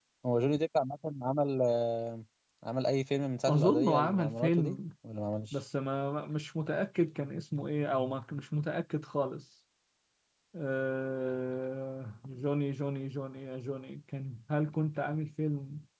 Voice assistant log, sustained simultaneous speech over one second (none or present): present